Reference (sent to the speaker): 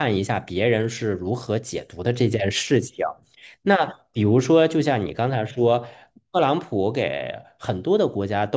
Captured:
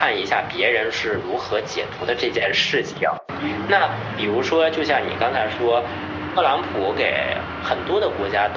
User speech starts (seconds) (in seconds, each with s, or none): none